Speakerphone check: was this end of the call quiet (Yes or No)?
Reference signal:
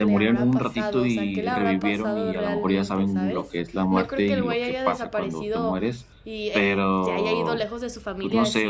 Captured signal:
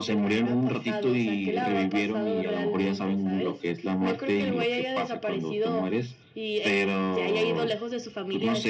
Yes